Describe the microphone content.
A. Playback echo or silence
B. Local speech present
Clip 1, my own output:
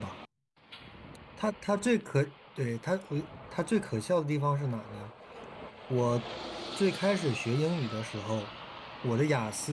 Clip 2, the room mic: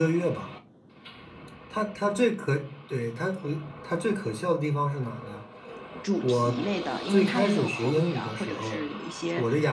B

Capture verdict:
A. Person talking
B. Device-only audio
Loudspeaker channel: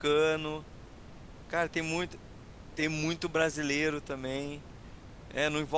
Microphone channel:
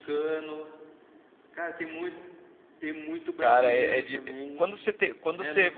A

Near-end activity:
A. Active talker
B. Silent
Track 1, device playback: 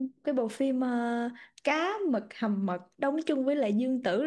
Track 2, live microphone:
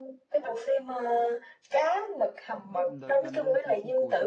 A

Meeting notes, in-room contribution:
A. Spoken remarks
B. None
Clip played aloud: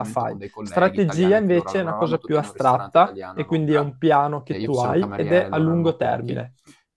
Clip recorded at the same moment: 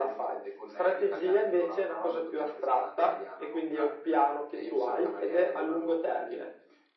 B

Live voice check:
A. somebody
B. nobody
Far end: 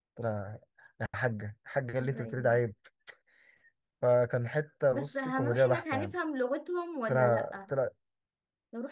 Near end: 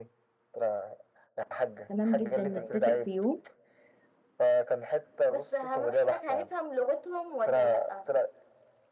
A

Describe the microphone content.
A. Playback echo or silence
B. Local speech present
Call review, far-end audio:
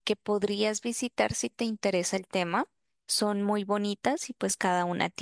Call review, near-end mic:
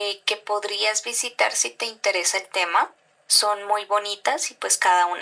A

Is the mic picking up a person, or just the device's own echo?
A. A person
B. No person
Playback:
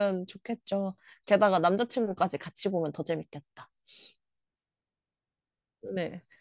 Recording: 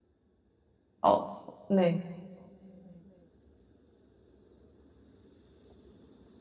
A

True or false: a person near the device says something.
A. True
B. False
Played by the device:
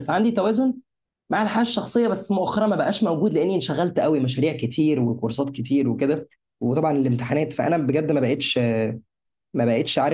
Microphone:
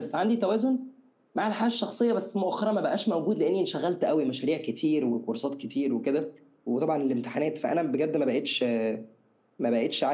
B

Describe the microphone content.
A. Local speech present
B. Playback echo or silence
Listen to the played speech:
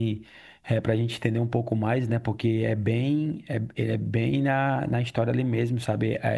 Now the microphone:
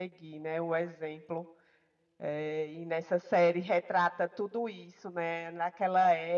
A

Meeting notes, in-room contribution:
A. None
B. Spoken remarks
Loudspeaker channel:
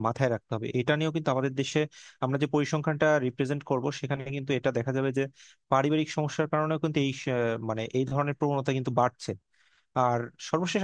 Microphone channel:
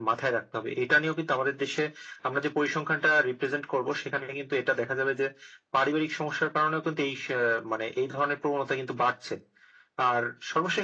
A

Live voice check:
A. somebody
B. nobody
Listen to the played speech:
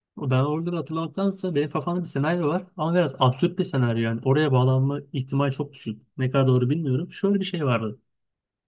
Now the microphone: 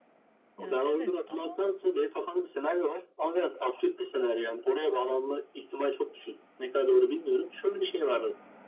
A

